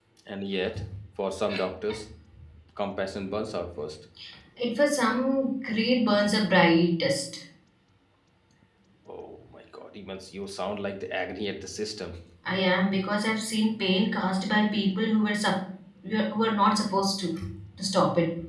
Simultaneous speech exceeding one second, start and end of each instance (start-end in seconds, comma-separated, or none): none